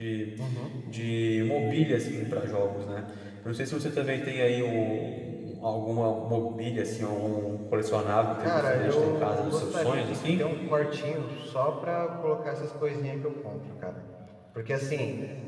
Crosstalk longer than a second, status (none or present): present